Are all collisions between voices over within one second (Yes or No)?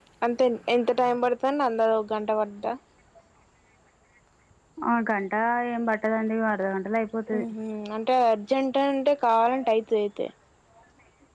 Yes